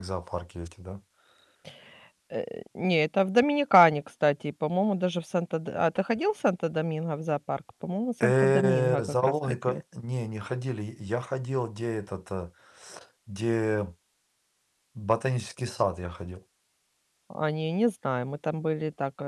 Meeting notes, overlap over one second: present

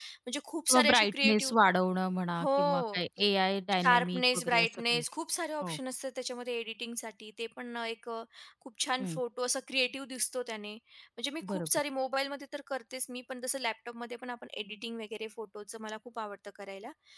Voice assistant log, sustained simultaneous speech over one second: present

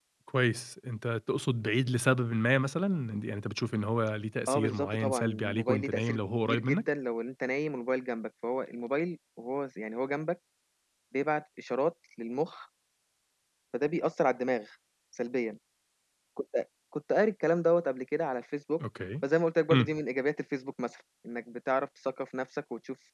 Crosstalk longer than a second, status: present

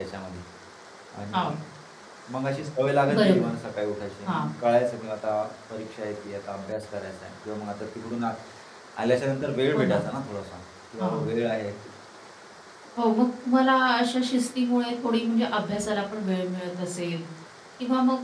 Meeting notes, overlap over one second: none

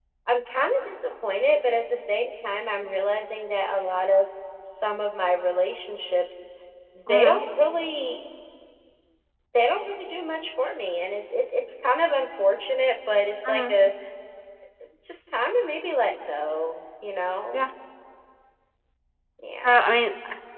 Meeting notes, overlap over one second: none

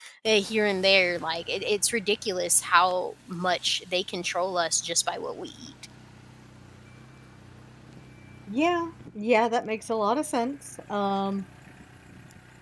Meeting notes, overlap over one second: none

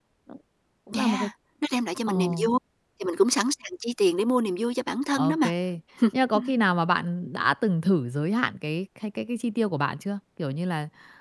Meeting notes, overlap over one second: none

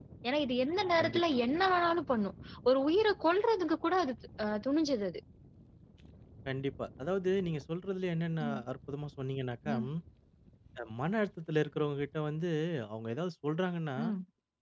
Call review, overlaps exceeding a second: none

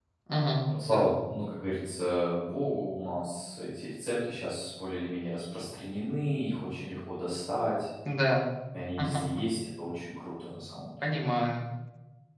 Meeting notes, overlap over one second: none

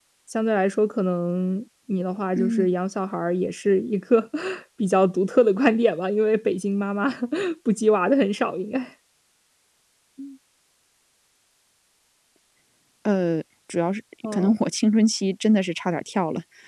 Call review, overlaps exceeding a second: none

